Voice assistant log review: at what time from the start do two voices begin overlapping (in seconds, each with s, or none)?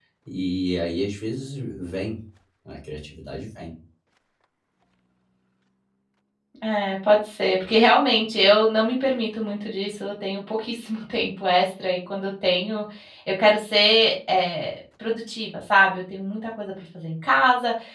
none